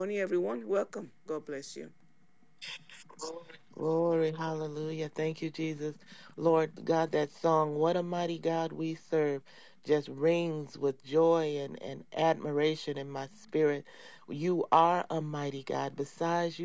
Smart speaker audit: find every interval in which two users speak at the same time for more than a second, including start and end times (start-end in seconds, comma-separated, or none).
none